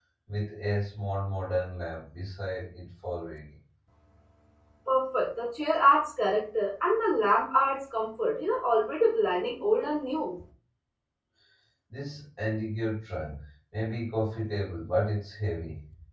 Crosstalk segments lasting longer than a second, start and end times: none

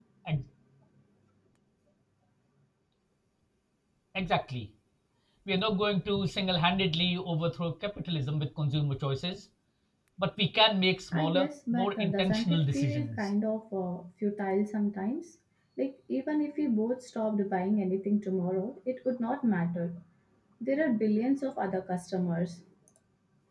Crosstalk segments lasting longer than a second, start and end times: 11.1-13.2

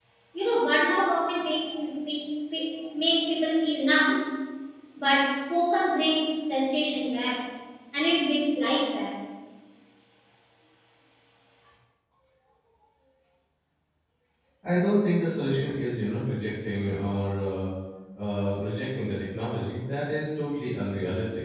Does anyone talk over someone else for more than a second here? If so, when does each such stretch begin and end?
none

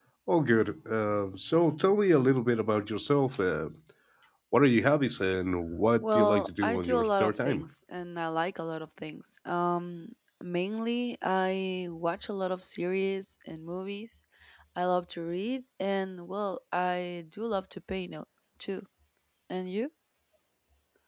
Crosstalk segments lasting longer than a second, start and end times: 6.0-7.7

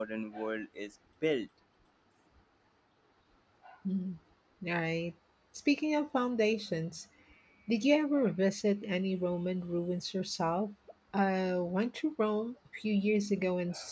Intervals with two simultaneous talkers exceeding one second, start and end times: none

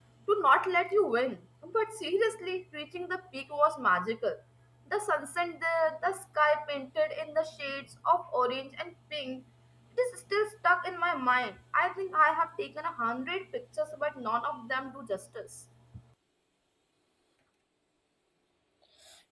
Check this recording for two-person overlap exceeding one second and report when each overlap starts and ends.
none

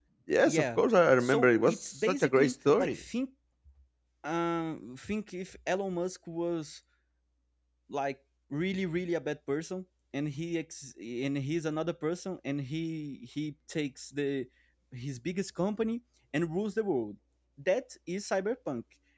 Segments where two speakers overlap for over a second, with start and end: 1.2-3.0

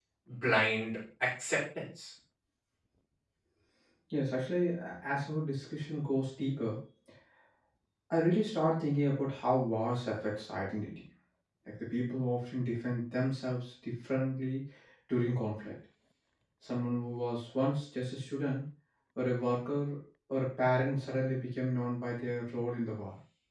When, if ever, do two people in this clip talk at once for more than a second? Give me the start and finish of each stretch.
none

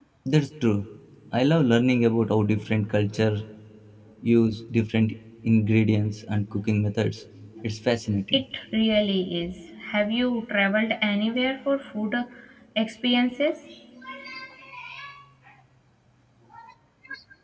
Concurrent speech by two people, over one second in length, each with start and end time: none

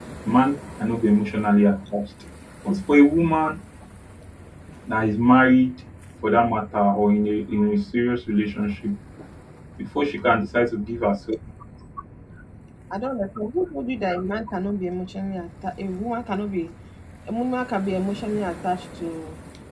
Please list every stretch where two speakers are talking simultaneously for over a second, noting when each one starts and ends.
none

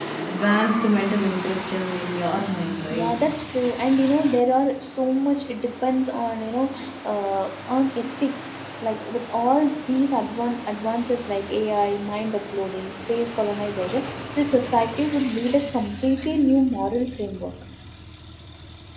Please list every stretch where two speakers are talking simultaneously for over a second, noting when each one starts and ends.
none

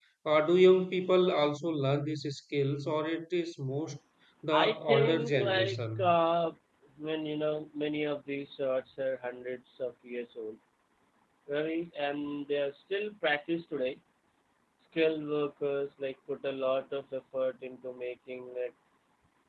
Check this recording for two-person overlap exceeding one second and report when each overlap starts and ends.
4.5-6.2

